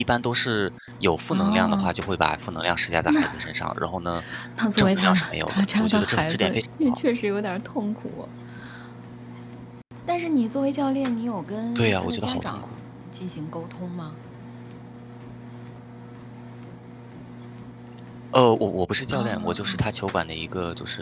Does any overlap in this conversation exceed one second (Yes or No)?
Yes